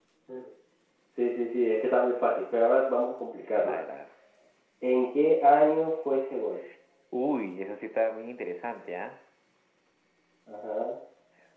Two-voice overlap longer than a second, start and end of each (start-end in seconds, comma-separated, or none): none